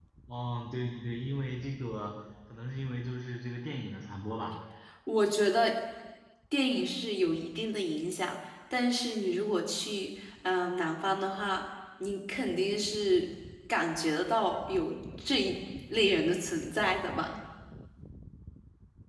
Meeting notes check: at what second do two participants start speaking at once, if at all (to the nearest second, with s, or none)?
none